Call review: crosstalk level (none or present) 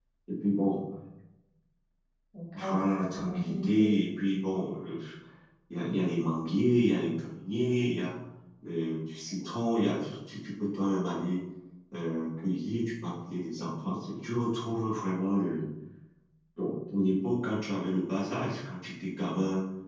present